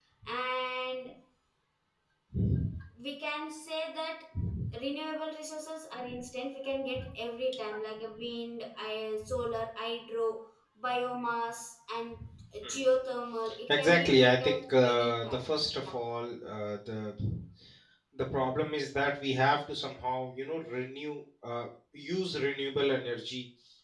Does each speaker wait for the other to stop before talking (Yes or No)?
No